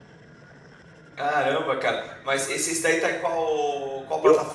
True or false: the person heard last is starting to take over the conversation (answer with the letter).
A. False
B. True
B